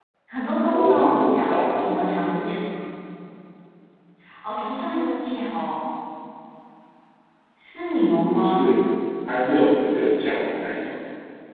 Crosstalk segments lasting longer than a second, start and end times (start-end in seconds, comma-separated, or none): 0.7-2.3